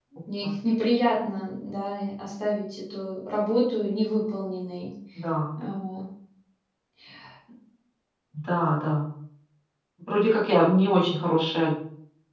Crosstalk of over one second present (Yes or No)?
No